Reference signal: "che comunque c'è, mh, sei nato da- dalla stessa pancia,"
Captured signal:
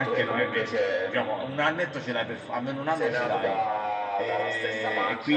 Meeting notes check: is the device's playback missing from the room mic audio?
No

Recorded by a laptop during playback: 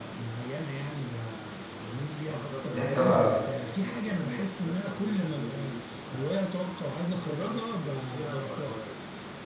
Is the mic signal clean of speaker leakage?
No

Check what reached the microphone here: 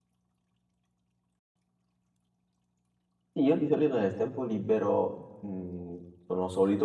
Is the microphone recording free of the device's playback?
Yes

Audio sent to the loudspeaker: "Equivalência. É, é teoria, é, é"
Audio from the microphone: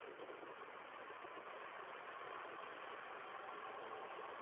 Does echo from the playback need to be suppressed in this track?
No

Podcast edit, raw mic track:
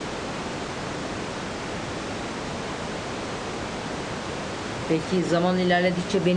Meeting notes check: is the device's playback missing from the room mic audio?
Yes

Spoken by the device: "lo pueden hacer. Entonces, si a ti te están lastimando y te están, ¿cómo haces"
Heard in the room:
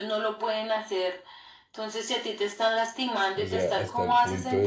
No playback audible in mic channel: No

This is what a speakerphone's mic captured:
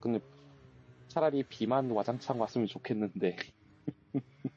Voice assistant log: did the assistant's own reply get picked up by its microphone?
No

